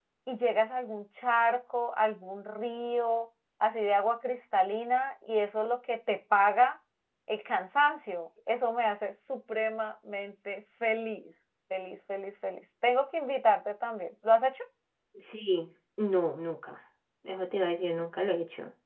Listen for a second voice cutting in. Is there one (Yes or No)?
No